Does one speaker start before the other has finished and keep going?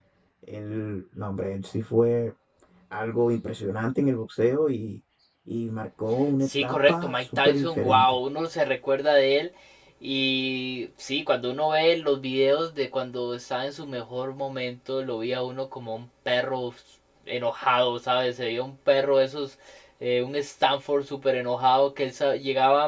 Yes, from 6.4 s

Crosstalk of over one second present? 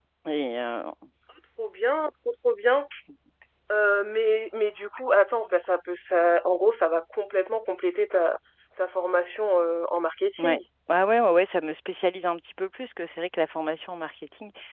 No

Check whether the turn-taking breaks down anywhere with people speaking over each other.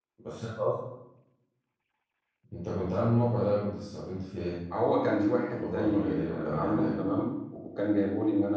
Yes, from 5.5 s

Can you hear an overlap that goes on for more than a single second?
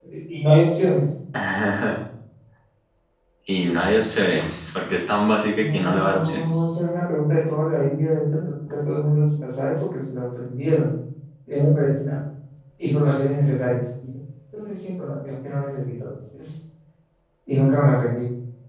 Yes, from 5.5 s

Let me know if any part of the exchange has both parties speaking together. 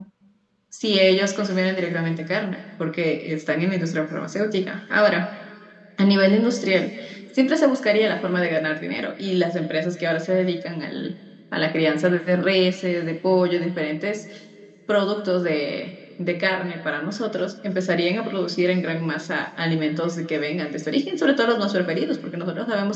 No

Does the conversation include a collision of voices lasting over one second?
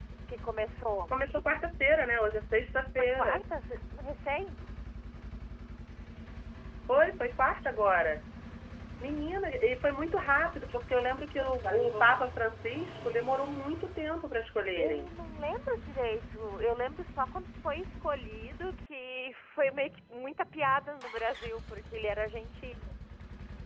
No

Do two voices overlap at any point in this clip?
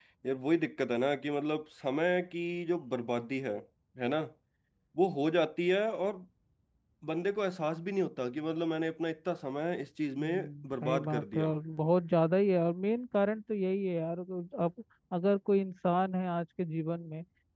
Yes, from 10.2 s

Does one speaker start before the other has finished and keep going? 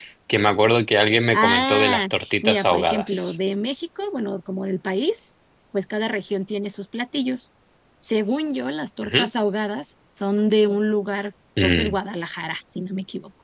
Yes, from 1.3 s

